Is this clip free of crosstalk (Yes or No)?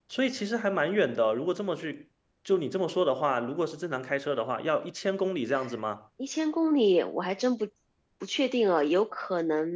Yes